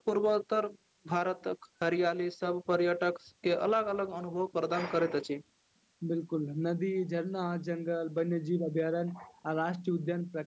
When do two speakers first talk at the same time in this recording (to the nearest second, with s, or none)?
none